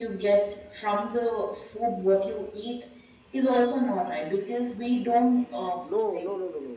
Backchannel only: No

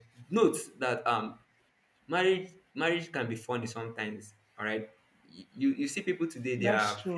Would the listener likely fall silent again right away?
Yes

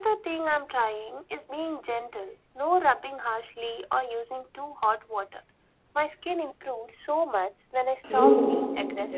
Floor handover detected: Yes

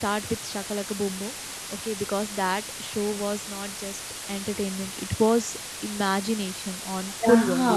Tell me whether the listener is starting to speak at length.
Yes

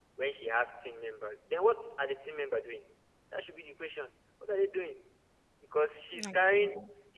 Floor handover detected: No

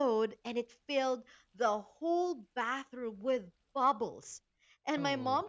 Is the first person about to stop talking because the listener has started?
No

